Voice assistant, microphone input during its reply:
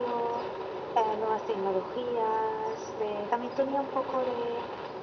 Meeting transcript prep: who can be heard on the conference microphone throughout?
echo only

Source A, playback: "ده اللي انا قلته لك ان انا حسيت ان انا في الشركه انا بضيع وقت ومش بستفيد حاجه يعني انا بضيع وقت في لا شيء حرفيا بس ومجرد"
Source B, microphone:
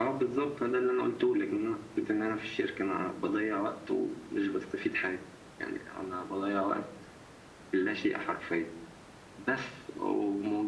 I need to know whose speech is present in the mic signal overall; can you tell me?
echo only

